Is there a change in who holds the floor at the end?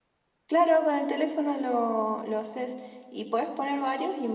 No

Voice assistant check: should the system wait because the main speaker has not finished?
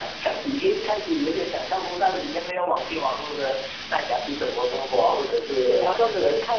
No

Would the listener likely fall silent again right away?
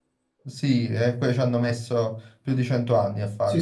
No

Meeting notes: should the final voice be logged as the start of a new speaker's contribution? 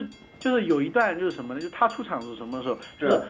No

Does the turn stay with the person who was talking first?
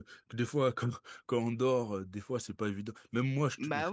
Yes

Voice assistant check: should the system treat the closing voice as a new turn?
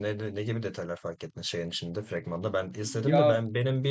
No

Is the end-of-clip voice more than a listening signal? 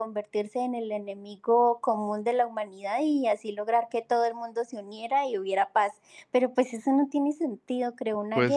No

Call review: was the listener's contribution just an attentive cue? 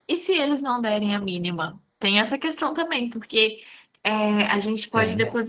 Yes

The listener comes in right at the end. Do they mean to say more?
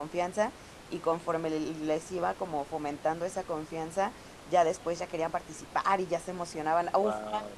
No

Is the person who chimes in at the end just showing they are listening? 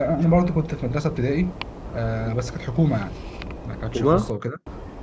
Yes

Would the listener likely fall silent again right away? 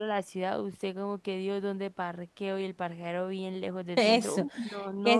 No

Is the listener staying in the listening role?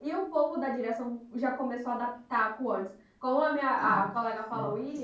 Yes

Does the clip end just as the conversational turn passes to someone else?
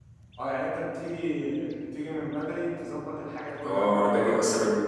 Yes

